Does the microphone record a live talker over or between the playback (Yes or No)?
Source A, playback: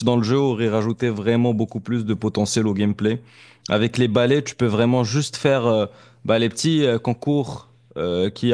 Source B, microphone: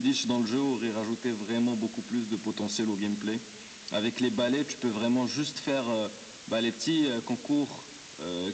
No